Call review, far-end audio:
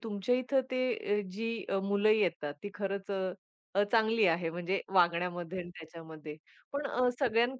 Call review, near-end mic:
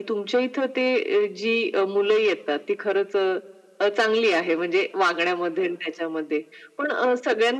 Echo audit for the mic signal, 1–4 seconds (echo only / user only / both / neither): echo only